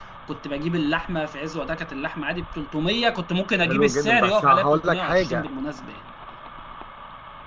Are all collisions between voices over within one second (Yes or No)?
No